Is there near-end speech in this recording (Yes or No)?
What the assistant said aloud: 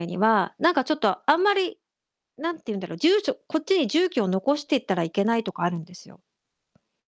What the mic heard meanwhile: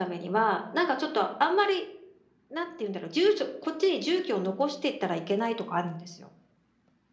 No